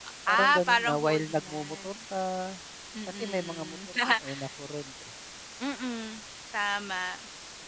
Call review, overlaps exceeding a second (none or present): present